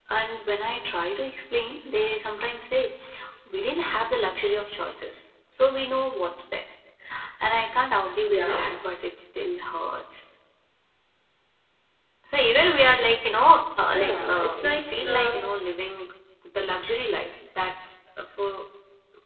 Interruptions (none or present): present